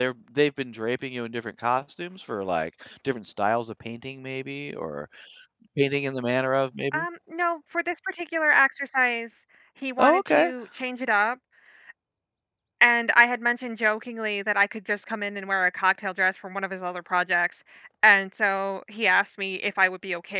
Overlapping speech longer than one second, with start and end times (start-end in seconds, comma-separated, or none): none